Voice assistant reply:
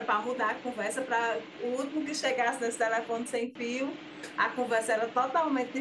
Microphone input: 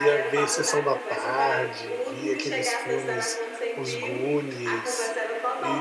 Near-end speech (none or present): present